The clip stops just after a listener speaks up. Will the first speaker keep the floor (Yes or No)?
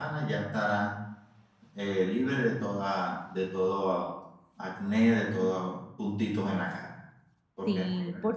No